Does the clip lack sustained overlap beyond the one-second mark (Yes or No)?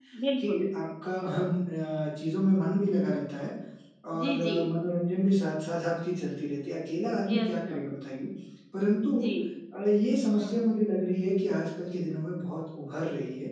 Yes